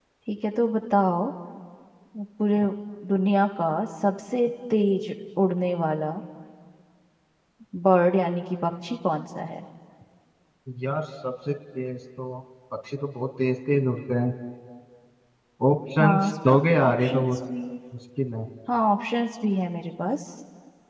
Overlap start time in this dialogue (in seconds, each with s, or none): 16.0 s